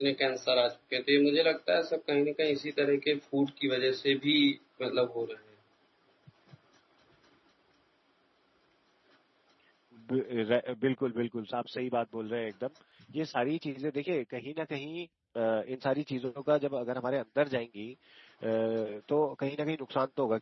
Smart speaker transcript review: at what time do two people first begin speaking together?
none

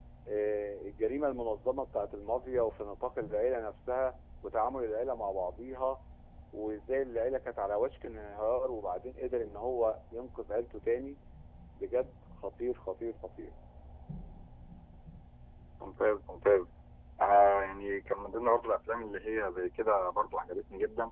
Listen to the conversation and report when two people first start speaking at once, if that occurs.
none

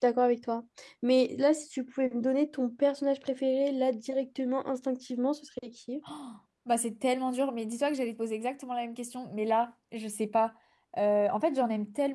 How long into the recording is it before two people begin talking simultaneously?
none

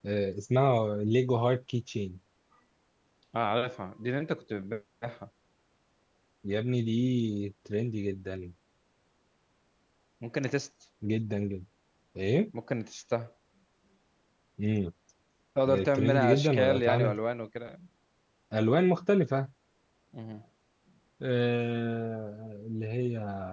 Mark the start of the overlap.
16 s

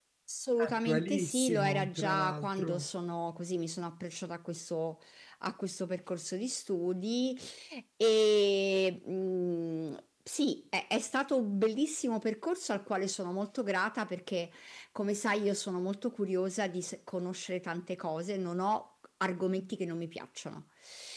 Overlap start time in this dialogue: 1 s

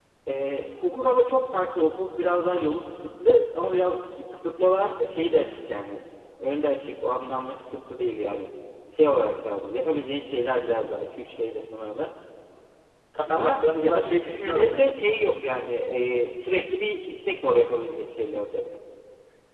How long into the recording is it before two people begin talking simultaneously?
13 s

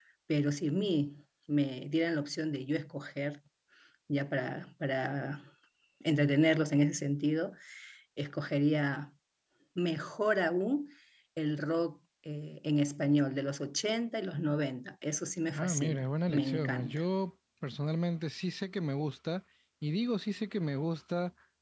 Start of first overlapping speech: 16 s

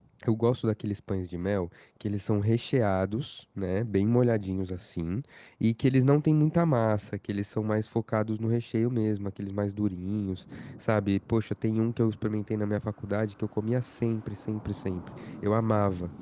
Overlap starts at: none

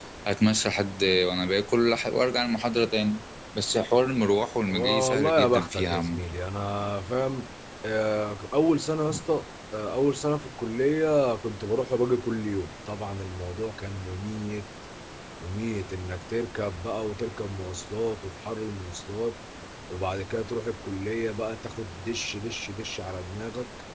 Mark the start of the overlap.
5 s

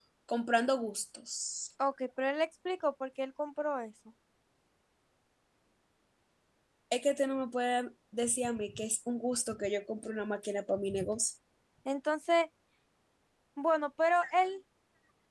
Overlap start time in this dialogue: none

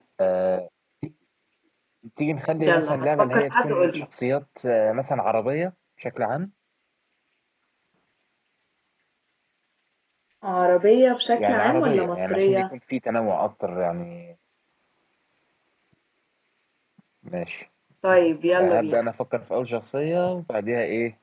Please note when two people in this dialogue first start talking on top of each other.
3 s

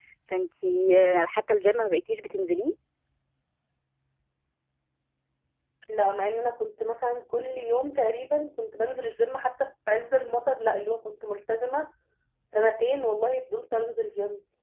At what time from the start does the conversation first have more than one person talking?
none

